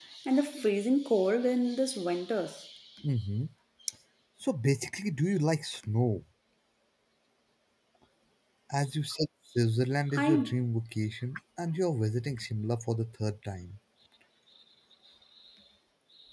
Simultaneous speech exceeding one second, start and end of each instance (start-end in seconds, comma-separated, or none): none